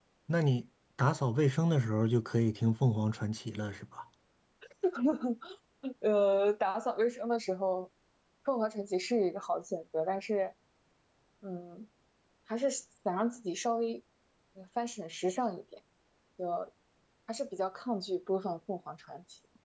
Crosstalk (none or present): none